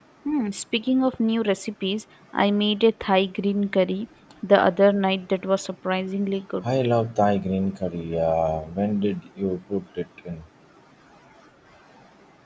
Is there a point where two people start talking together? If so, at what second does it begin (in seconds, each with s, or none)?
none